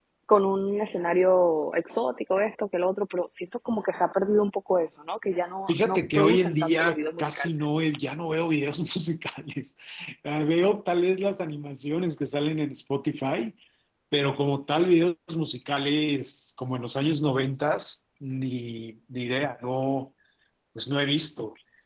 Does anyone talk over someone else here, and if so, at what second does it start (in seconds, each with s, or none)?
5.7 s